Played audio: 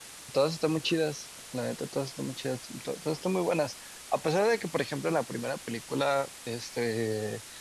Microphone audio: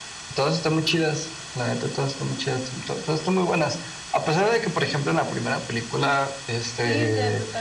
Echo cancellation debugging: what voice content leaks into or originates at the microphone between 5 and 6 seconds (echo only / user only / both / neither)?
echo only